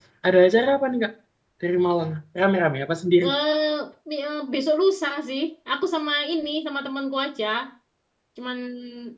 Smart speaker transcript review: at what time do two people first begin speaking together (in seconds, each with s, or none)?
none